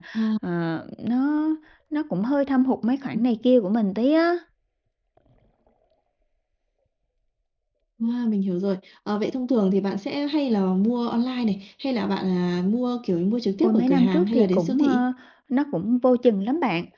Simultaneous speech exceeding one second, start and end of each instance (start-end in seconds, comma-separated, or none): 13.6-15.0